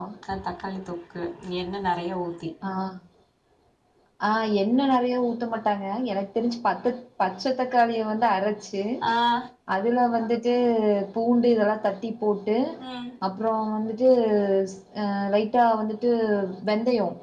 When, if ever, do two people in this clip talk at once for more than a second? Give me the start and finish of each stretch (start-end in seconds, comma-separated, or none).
none